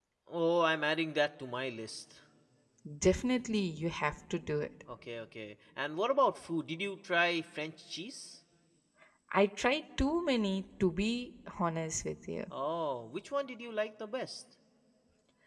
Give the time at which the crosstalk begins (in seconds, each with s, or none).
none